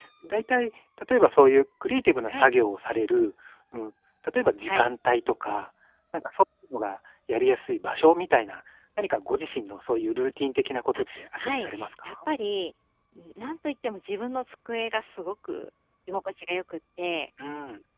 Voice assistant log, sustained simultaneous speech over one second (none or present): present